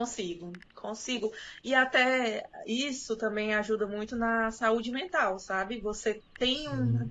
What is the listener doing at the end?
listening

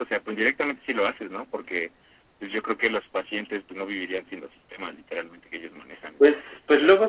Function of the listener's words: taking over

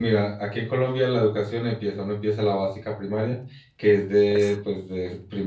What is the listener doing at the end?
listening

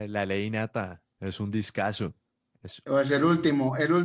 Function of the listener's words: taking over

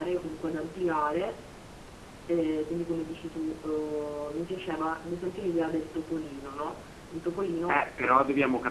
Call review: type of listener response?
taking over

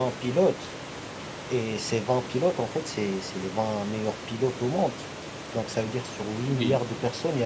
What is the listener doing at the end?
listening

